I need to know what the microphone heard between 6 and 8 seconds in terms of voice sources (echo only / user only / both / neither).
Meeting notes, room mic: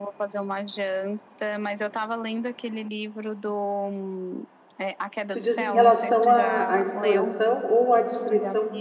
both